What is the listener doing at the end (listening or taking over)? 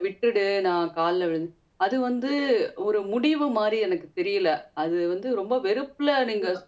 listening